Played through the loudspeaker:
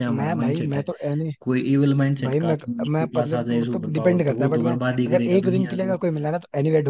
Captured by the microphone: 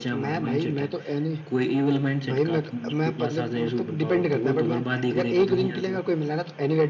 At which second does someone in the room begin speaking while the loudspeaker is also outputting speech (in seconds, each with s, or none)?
none